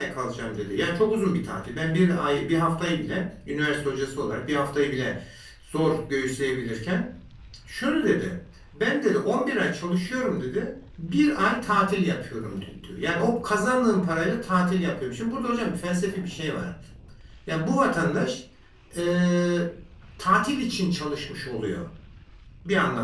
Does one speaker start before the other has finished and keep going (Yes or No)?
No